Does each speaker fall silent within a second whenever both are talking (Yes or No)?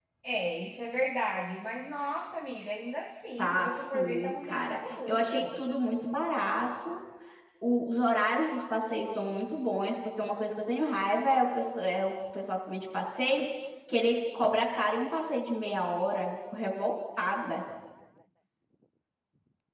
No